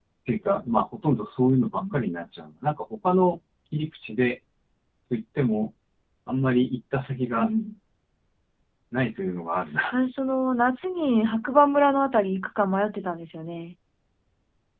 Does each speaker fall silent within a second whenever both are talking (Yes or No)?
Yes